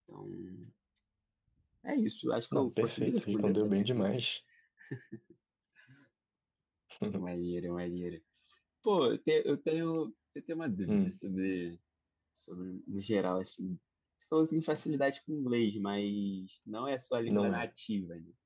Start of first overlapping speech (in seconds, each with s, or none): 2.5 s